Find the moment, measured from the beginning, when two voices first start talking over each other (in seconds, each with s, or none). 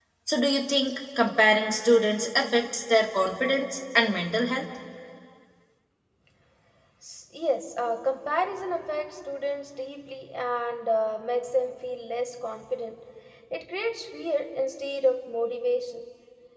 none